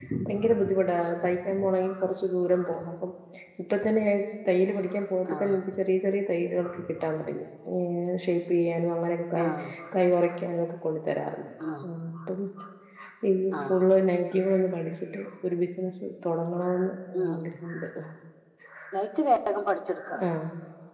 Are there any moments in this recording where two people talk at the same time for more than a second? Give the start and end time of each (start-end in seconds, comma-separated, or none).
none